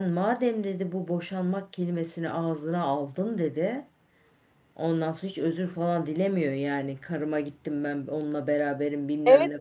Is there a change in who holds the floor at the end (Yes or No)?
Yes